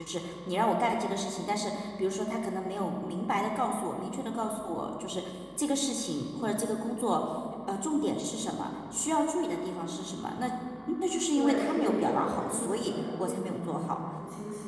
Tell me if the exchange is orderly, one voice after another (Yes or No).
No